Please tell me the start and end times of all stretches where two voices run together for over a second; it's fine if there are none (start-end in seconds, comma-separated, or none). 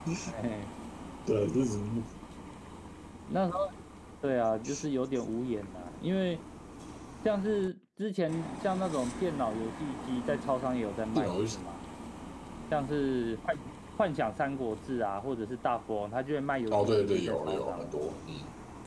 16.7-17.9